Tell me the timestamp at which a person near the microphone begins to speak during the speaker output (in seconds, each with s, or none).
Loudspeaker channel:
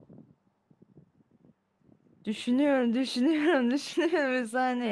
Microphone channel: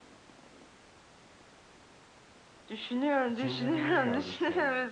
3.2 s